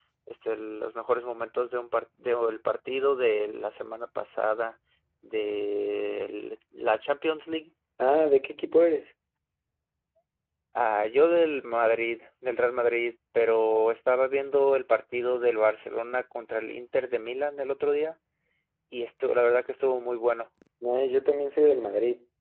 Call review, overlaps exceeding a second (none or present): none